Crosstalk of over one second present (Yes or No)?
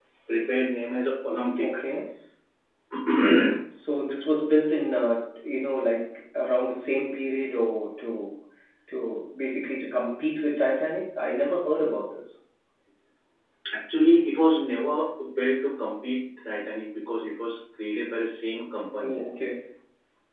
No